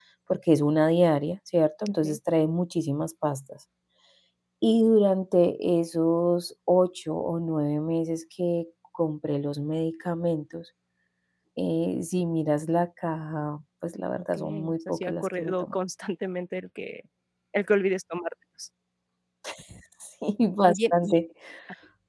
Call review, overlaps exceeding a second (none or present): present